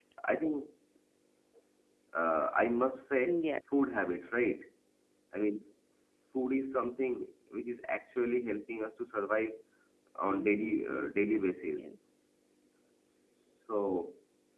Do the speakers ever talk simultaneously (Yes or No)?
Yes